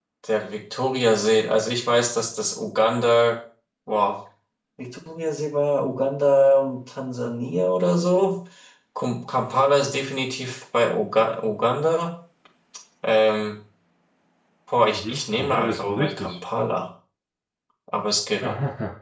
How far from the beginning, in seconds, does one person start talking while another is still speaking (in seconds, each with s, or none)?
14.8 s